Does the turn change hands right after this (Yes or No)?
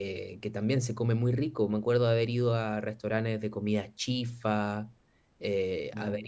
No